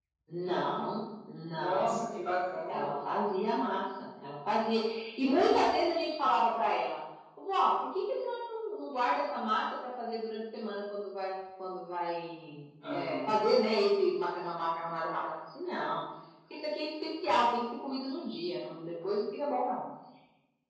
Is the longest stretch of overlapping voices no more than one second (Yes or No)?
Yes